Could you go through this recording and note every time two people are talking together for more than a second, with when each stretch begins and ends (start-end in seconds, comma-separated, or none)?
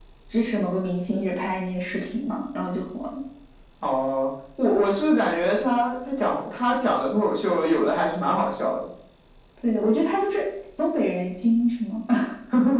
none